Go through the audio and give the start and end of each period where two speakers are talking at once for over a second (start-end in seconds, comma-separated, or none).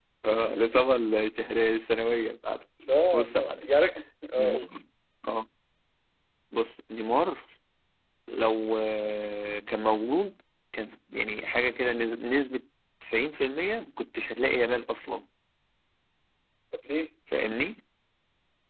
none